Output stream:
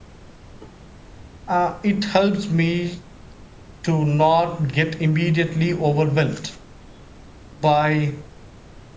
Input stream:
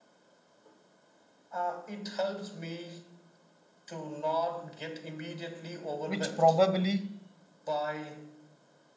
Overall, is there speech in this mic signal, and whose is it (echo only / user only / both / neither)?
both